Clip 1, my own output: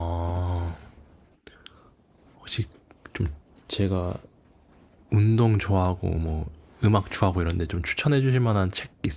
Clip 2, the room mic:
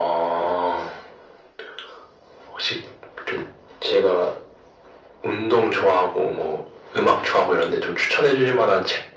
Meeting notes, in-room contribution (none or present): none